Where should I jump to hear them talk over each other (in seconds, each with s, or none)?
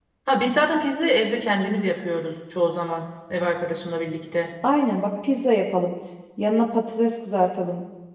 none